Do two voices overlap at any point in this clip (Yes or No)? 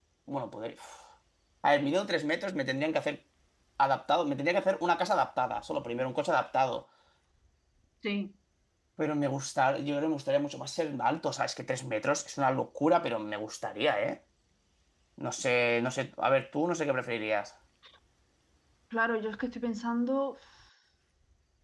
No